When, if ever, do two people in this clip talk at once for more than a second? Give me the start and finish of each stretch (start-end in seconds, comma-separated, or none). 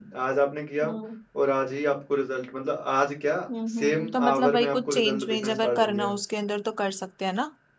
3.8-6.1